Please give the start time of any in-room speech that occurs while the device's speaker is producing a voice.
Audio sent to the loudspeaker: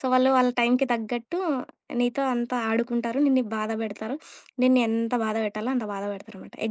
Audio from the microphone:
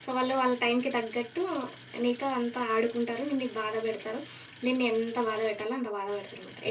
none

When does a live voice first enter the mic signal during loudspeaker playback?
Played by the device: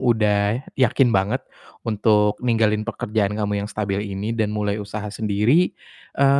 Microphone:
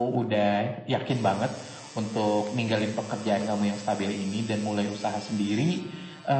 none

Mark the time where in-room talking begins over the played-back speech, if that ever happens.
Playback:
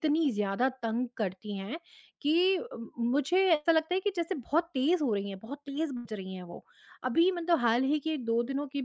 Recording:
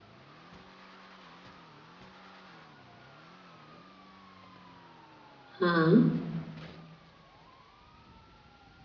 5.6 s

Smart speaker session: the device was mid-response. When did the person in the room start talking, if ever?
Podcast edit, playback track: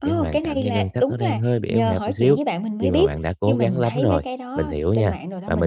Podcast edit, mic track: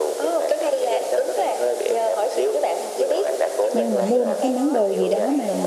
3.7 s

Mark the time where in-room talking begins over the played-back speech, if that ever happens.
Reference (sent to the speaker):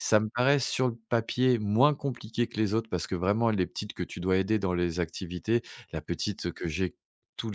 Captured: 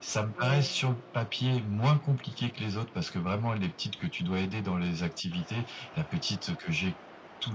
0.3 s

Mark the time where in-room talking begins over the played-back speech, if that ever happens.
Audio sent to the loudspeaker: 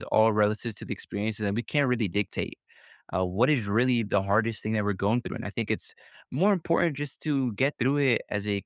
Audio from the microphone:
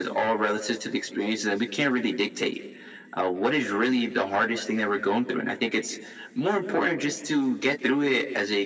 none

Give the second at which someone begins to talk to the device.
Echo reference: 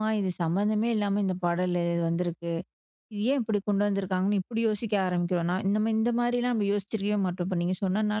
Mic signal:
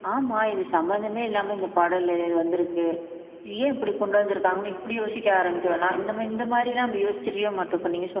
none

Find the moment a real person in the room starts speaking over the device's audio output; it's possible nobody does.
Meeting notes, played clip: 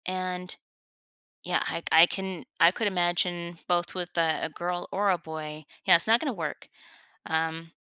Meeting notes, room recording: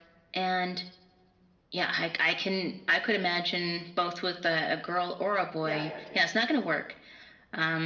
5.6 s

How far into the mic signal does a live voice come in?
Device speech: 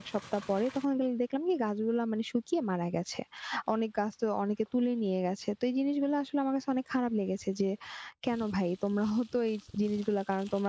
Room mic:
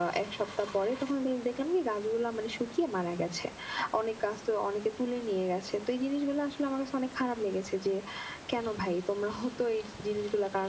none

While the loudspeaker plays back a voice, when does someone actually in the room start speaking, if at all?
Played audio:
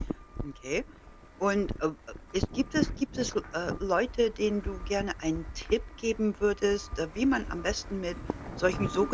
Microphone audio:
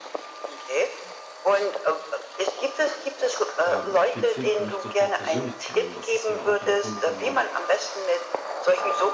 3.6 s

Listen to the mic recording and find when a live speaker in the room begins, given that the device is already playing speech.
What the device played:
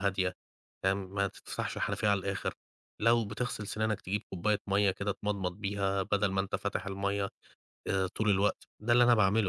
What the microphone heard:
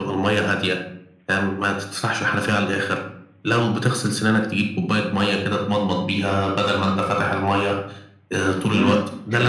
8.5 s

